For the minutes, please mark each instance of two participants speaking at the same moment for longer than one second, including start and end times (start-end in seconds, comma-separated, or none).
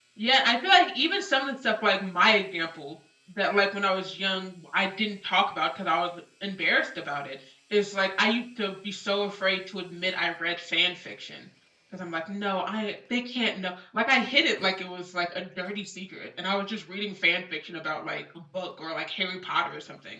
none